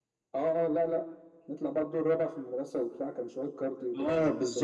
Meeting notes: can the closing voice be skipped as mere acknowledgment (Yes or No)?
No